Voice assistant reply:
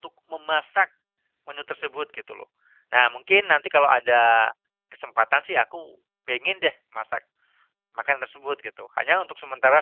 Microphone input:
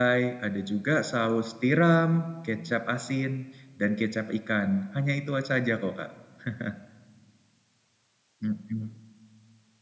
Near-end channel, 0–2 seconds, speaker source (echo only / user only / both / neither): user only